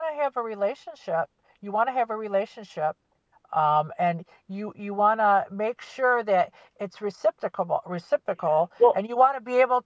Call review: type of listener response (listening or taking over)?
listening